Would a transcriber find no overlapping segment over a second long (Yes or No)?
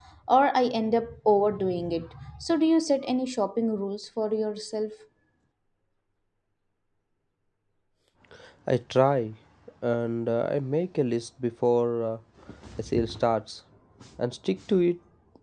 Yes